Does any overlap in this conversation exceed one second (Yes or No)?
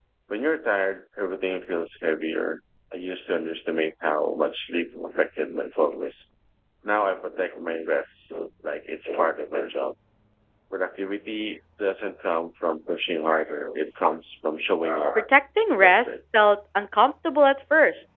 No